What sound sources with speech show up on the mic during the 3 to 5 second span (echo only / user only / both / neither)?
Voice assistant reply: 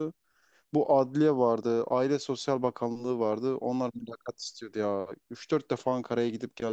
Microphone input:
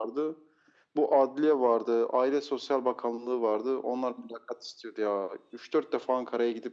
echo only